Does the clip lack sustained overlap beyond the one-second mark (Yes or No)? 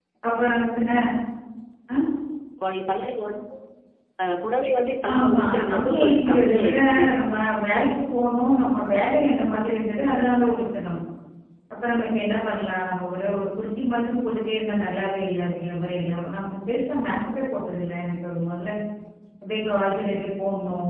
No